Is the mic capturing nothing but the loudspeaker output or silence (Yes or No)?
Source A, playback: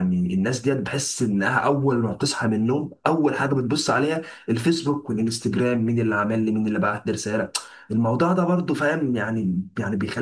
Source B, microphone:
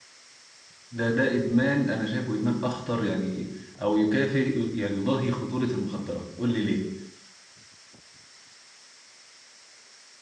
No